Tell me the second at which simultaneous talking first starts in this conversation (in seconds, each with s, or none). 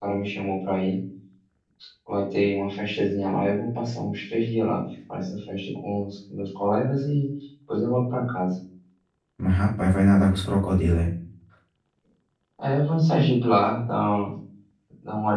none